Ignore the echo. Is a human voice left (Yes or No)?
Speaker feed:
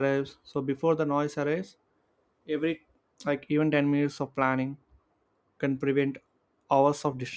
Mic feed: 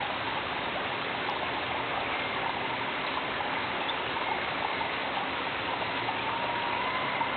No